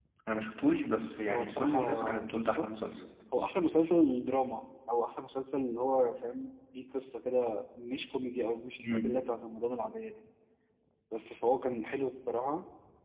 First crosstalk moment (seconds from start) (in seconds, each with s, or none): 1.2 s